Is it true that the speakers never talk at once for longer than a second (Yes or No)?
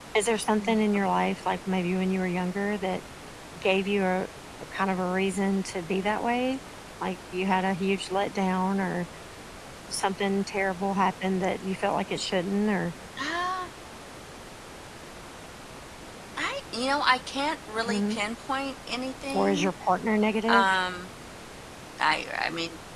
Yes